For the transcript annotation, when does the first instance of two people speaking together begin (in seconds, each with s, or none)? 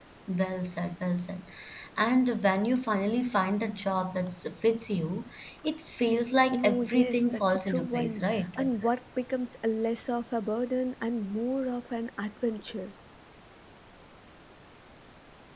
6.5 s